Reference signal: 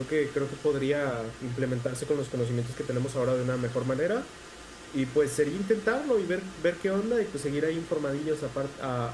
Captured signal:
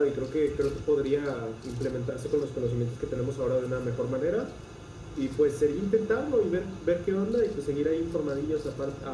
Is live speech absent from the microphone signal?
Yes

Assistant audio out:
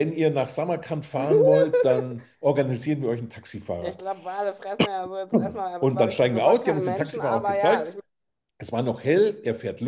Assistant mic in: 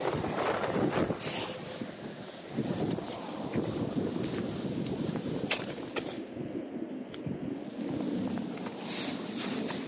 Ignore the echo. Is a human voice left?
No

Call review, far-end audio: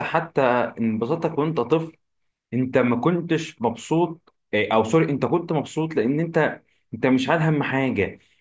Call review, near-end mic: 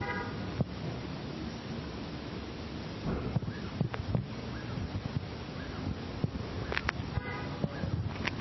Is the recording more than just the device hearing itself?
No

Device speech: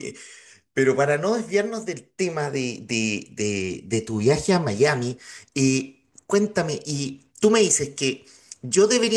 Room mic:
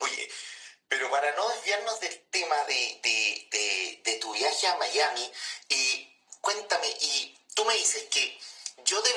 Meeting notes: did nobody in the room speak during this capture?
Yes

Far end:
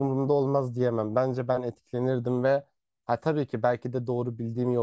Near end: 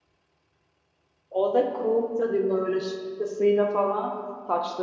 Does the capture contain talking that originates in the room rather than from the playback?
Yes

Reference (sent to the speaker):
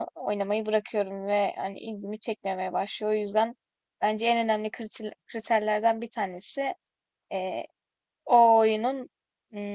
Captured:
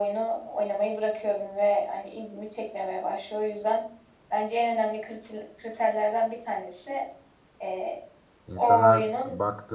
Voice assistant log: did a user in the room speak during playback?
Yes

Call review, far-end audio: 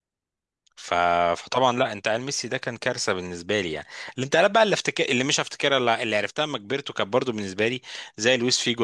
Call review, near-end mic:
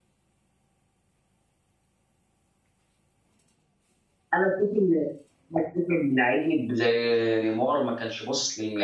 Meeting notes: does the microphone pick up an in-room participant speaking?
Yes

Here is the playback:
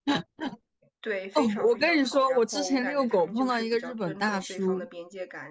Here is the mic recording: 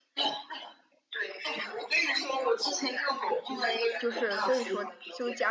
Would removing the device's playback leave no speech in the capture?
No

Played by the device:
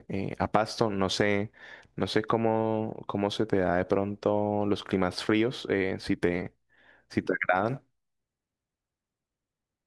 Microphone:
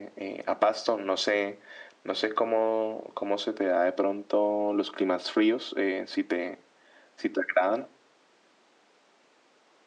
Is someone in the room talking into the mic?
No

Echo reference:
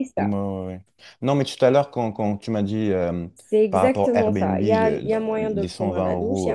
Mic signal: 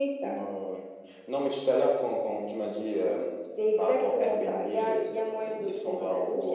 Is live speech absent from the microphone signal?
Yes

